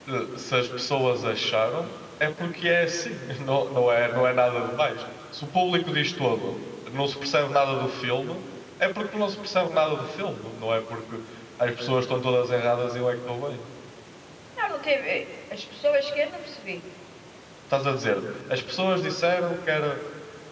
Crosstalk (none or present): none